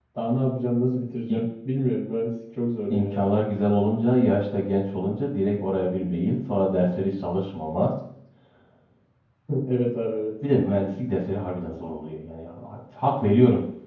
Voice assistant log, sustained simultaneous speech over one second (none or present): none